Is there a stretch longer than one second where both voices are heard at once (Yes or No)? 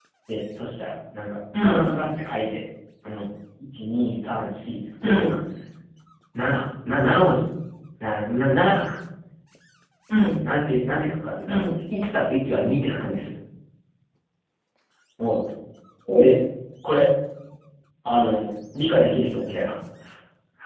No